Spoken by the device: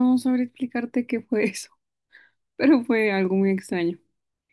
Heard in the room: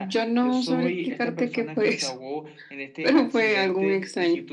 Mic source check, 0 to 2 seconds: both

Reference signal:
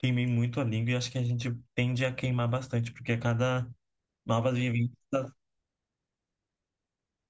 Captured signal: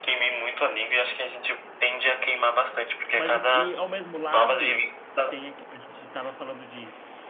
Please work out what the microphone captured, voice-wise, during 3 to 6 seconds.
both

